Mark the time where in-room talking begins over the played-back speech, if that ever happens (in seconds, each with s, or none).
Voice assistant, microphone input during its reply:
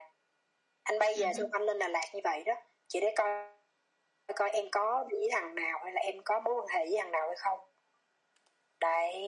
1.1 s